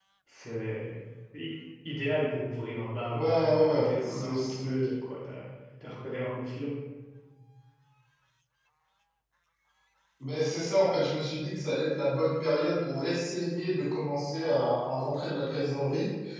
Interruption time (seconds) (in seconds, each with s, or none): 3.1 s